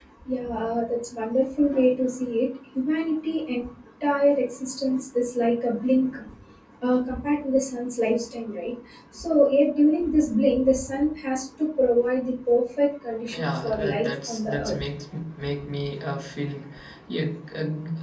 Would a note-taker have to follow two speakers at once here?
Yes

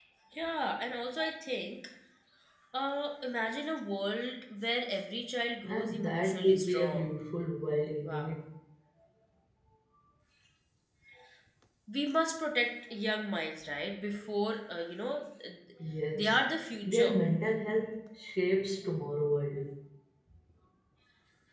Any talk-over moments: Yes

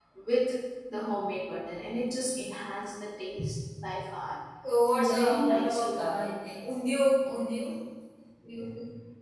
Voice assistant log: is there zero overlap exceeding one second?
No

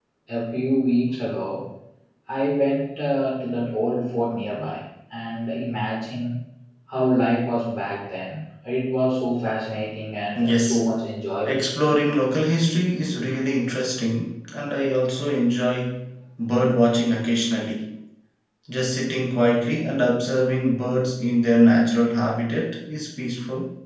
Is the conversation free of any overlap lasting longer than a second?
Yes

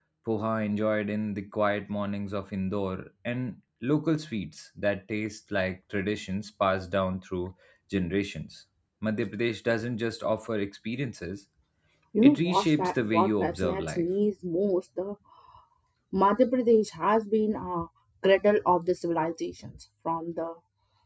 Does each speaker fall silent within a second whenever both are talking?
No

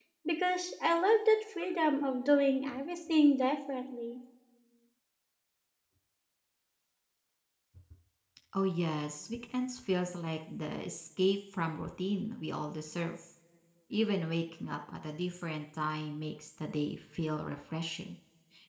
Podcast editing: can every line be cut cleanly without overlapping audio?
Yes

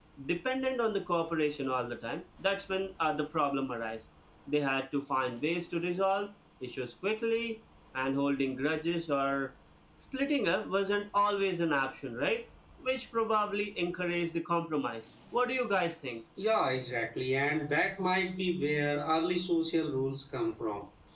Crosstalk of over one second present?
No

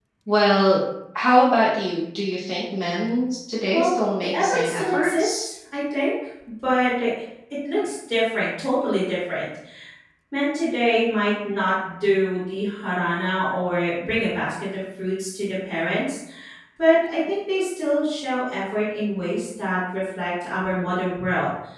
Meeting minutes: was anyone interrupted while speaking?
Yes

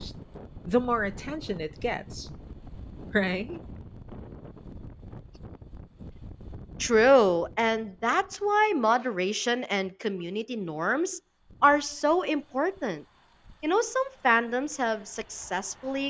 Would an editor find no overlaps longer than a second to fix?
Yes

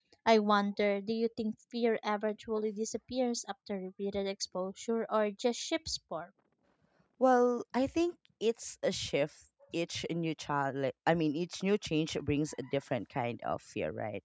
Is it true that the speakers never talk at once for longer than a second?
Yes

